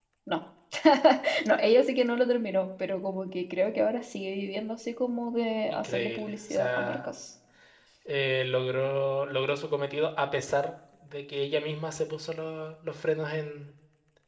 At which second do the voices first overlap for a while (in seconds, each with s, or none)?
5.7 s